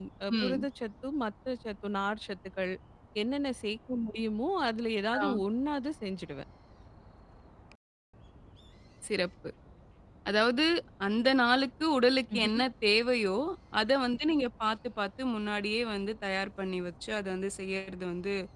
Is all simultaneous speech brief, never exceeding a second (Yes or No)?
Yes